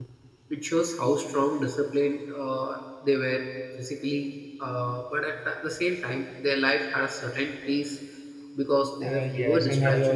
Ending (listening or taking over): taking over